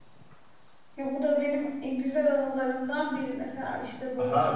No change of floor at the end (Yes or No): No